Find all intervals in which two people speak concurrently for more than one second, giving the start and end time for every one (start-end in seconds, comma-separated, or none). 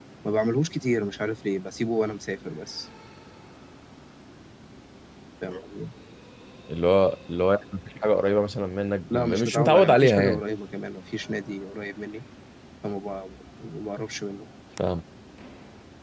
9.1-10.4